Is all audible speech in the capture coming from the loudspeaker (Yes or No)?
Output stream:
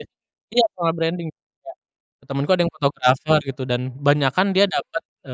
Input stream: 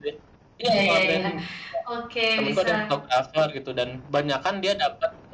No